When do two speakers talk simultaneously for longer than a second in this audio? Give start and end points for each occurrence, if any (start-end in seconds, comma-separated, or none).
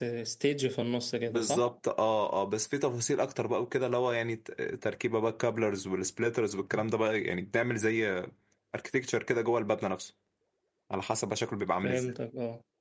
none